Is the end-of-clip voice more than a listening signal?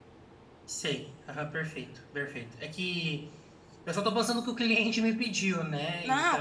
Yes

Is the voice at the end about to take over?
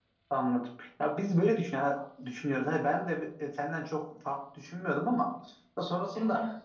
No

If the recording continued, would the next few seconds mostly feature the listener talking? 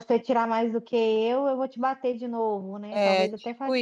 Yes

